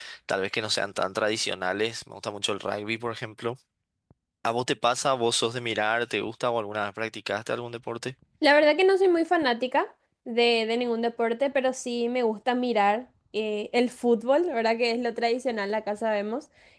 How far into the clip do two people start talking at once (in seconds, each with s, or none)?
none